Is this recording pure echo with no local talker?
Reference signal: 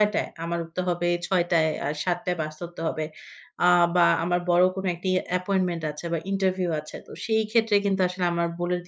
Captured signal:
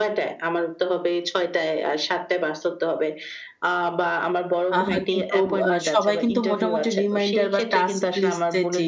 No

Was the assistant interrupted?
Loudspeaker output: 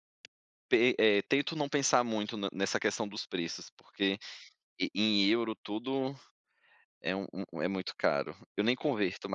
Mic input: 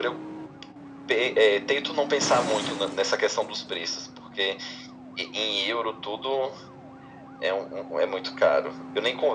No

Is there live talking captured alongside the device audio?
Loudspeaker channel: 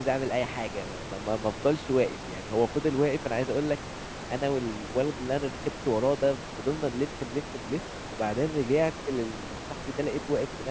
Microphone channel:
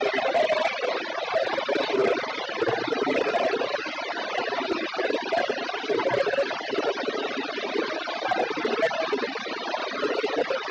No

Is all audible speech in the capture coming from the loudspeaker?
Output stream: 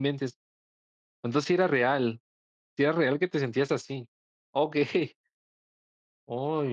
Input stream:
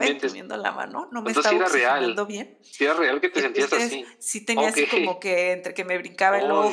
No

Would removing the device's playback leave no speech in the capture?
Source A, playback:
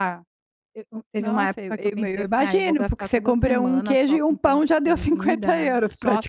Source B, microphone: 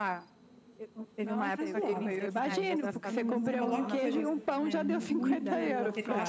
No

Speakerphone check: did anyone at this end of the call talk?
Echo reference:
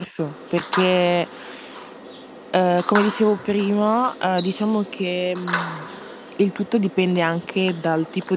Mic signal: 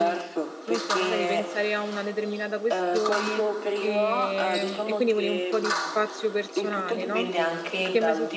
Yes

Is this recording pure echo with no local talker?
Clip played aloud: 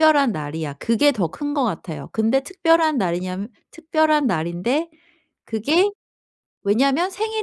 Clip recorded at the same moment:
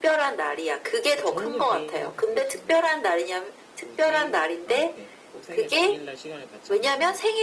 No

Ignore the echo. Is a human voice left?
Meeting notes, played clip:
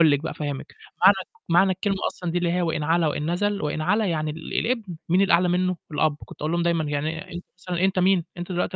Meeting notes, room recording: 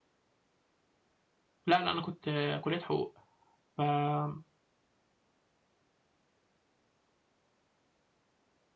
Yes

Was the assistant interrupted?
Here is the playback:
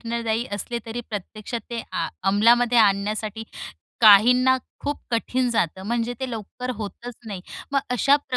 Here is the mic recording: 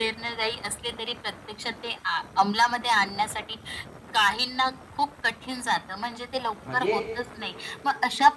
Yes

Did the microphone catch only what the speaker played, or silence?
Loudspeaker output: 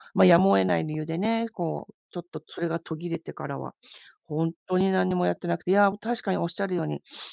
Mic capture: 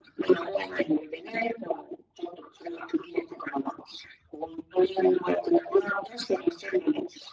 Yes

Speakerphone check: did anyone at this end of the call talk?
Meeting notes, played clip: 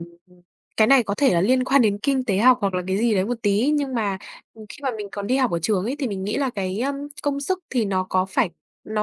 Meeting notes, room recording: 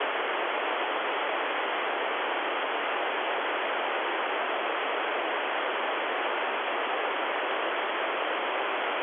No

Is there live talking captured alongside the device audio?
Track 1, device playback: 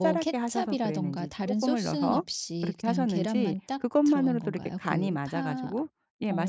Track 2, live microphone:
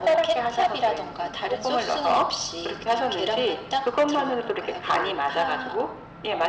No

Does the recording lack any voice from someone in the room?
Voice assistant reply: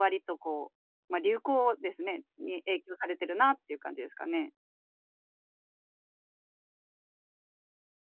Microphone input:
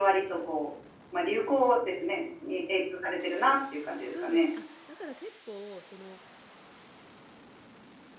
No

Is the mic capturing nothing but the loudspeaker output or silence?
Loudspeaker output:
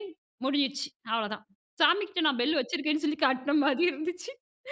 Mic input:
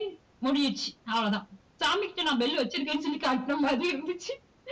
Yes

